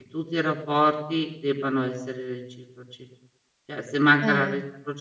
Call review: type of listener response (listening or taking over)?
listening